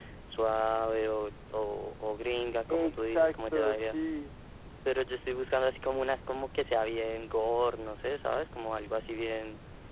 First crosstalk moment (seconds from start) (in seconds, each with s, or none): 2.7 s